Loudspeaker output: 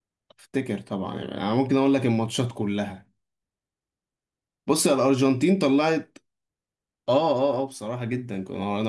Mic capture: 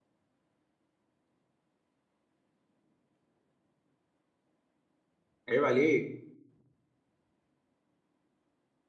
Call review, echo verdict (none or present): none